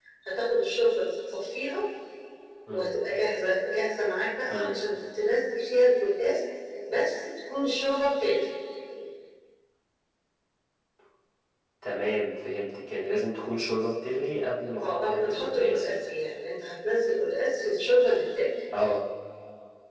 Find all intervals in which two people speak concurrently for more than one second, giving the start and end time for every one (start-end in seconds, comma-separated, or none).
14.8-16.0